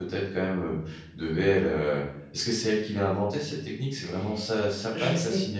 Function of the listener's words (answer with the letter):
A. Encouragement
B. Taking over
B